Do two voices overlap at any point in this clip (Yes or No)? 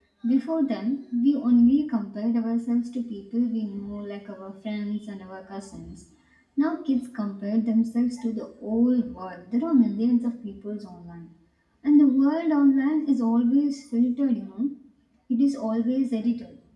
No